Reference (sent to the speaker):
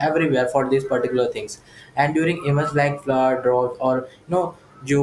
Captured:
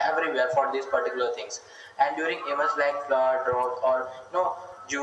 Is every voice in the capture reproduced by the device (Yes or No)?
Yes